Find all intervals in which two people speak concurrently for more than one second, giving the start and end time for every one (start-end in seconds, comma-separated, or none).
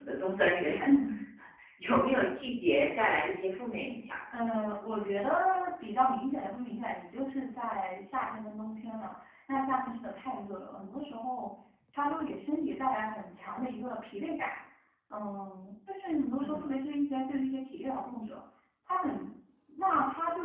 none